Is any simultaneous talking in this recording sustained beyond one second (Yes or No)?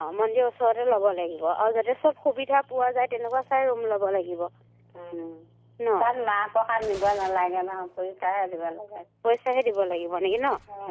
No